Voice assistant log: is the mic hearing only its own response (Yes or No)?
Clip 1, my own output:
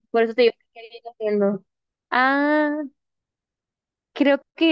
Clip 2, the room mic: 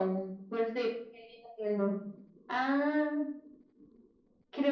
Yes